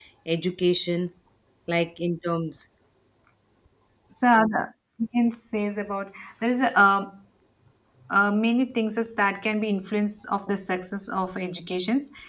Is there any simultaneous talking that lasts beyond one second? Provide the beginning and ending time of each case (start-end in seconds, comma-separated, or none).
none